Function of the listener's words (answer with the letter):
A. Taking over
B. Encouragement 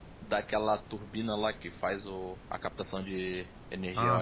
A